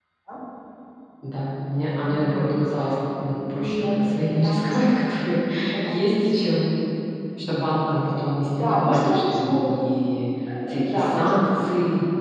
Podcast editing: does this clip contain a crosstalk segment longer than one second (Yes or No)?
Yes